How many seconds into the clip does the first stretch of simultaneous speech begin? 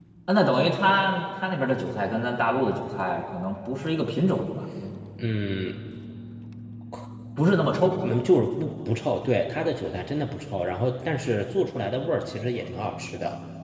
none

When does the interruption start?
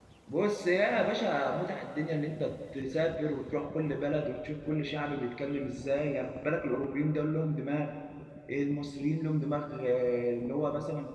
none

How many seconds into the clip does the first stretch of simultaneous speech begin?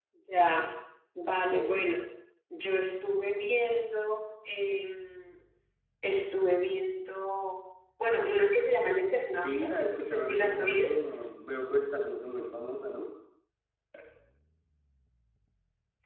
9.4 s

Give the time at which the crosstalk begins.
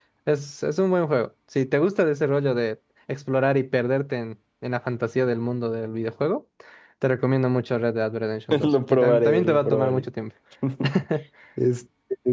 8.5 s

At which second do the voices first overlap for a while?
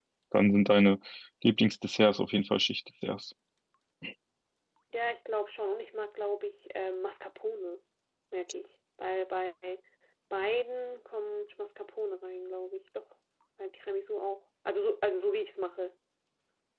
none

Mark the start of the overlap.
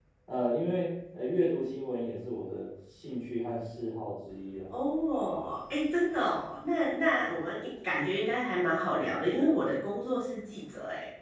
none

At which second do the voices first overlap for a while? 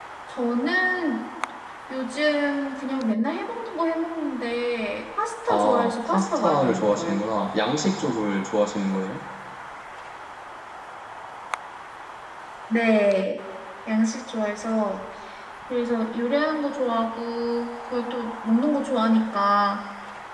5.5 s

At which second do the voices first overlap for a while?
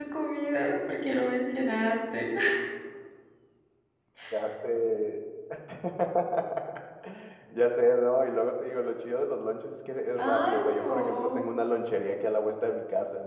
10.2 s

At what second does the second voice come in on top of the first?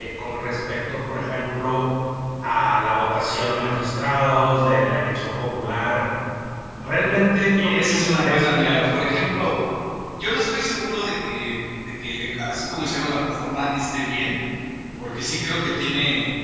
7.5 s

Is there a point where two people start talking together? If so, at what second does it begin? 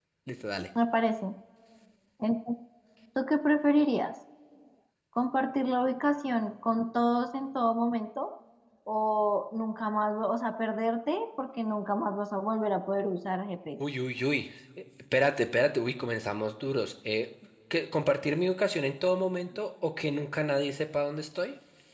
none

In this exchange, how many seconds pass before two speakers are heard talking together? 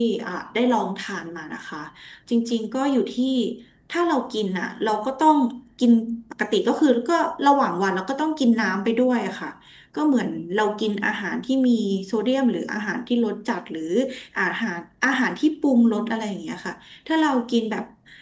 none

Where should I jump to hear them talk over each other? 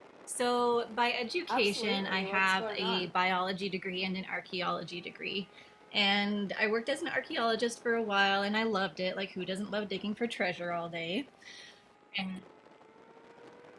1.5 s

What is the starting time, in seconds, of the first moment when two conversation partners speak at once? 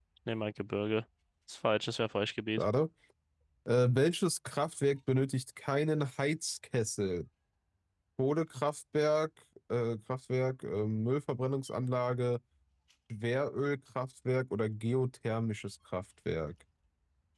none

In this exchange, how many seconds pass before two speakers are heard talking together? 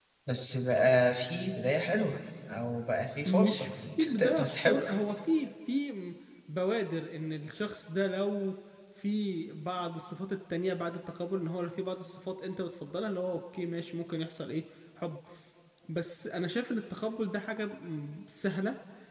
3.2 s

